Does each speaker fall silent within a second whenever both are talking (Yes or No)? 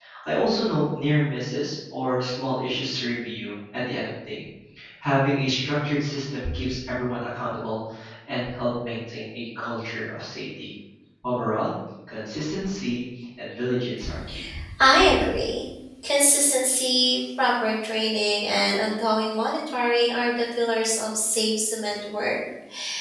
Yes